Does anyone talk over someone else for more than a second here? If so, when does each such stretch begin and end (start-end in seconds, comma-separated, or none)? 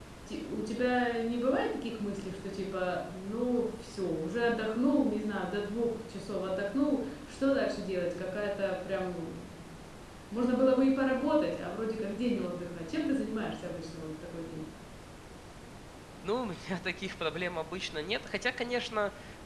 none